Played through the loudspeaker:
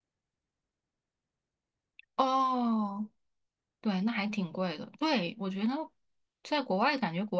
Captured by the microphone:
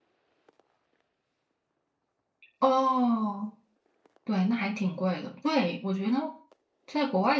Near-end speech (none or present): none